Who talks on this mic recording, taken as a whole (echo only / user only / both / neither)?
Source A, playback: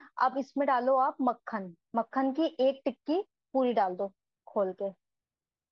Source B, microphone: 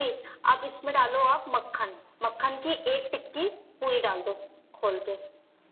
echo only